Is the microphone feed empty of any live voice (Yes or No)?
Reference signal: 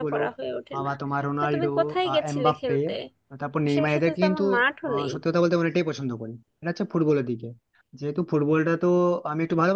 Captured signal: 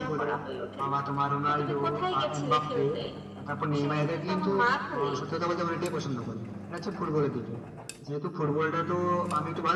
Yes